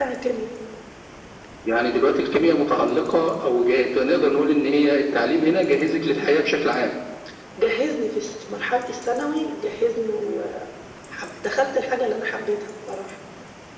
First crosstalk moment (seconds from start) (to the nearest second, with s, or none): none